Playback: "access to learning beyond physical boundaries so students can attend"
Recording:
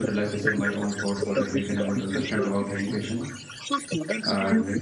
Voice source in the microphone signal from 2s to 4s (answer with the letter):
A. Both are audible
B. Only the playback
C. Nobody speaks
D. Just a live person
A